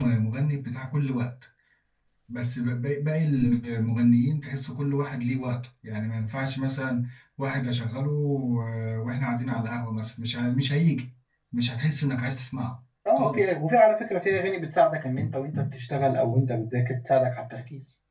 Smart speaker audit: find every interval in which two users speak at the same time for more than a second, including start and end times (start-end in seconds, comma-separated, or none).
none